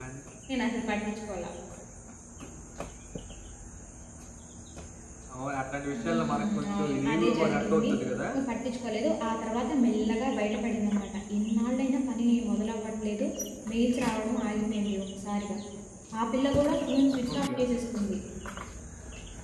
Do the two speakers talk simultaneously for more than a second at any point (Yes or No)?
Yes